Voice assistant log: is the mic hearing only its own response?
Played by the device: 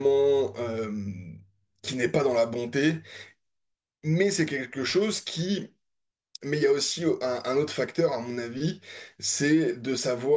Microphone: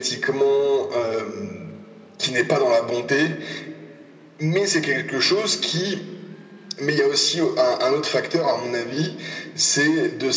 Yes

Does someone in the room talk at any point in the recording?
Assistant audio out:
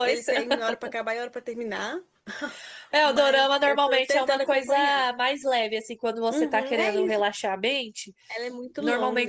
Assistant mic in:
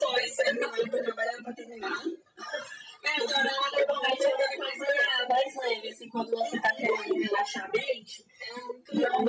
No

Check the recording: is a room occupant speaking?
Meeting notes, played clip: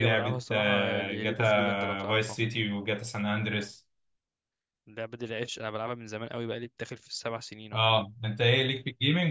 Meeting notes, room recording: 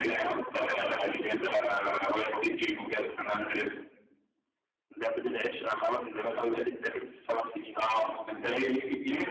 No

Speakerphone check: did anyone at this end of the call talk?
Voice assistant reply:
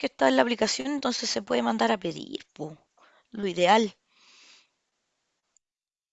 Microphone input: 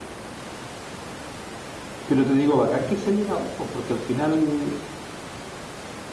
Yes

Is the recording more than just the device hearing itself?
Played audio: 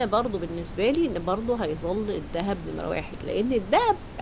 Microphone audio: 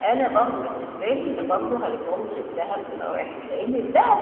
No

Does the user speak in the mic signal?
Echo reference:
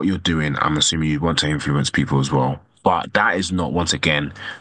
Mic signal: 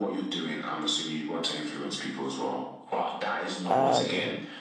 Yes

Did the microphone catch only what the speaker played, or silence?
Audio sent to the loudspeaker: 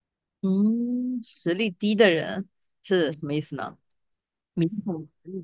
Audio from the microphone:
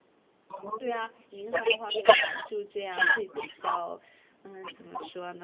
No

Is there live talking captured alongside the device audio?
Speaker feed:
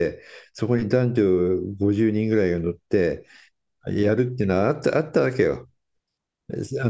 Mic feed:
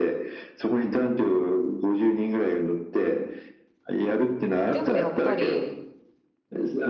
Yes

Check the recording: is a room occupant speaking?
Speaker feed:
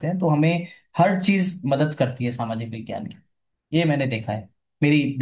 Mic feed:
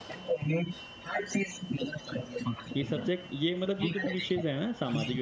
Yes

